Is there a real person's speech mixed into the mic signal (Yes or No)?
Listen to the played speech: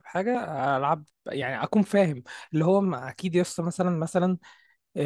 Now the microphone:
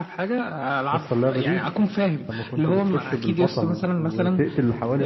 Yes